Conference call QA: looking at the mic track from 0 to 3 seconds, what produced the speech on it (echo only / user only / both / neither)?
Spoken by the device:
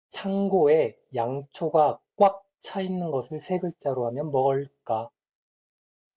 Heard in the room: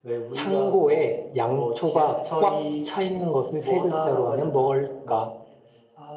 both